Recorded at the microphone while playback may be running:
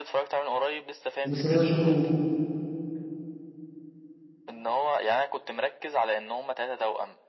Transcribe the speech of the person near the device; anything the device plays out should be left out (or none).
بس انا بشوفه